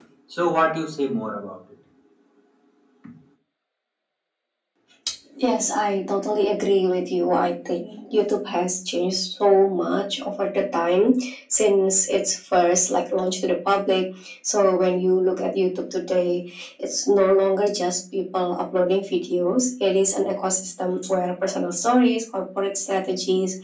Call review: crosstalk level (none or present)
none